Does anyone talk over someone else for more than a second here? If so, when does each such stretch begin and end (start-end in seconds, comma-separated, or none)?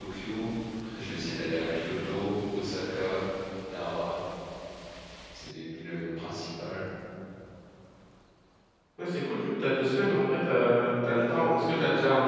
none